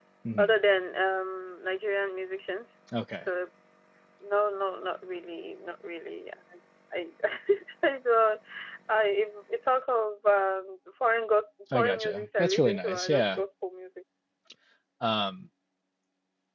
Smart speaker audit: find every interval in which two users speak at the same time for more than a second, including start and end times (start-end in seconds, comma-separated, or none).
11.7-13.4